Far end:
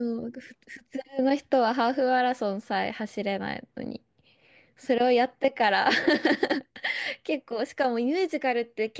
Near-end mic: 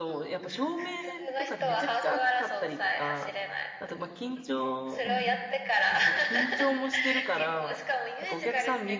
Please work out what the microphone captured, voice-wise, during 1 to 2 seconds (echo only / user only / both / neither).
both